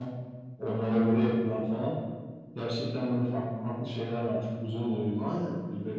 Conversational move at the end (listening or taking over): taking over